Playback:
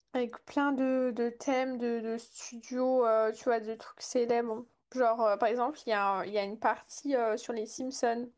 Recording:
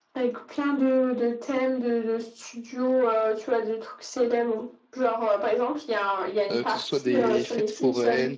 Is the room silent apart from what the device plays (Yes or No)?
No